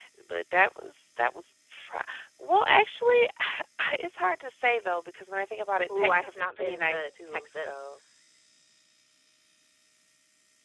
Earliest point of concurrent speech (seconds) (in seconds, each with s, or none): 5.9 s